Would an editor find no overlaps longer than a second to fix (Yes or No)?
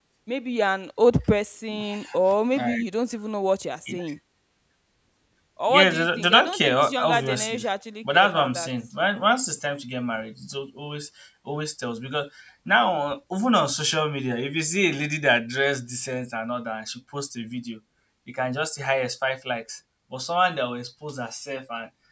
No